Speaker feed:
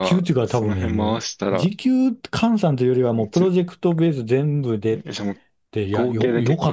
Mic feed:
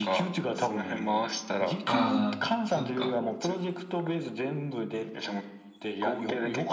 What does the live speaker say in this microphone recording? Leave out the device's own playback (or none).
ああ、そっか。